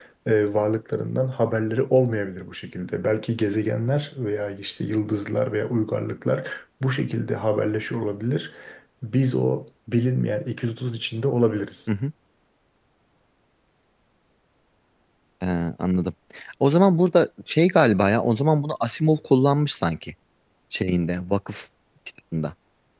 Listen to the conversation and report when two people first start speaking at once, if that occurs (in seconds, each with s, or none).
none